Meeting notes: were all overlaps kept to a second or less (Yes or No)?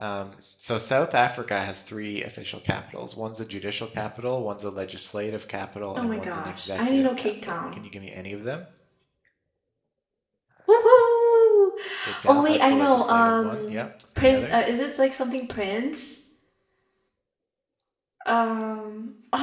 No